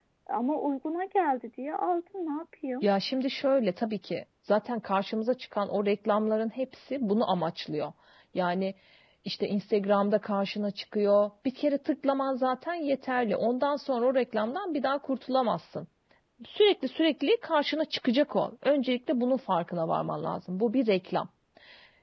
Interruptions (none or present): none